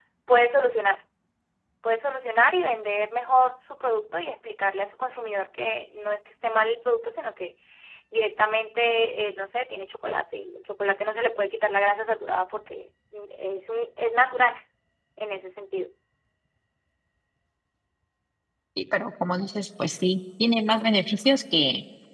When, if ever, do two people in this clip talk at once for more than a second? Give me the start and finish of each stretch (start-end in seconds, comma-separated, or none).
none